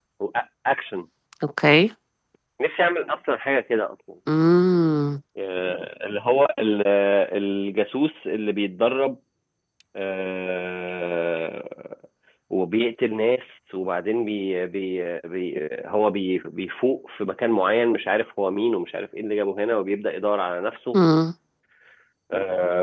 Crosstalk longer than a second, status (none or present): none